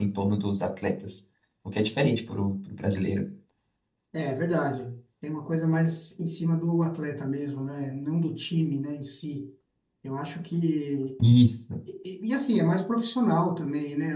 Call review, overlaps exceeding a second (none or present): none